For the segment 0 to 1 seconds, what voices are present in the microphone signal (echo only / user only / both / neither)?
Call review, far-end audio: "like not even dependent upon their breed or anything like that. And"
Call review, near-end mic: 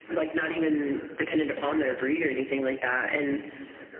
both